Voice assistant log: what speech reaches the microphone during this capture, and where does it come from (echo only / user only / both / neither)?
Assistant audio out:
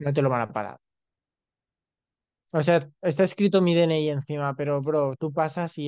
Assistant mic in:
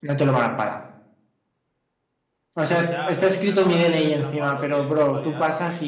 both